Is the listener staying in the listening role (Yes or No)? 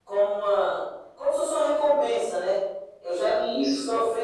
Yes